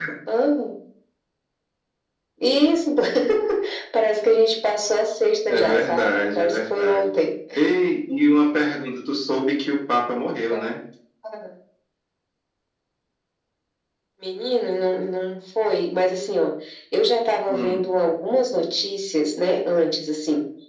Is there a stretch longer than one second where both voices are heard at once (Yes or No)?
Yes